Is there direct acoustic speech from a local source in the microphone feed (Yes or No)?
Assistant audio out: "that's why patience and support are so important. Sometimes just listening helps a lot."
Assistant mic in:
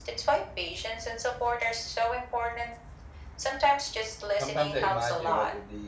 Yes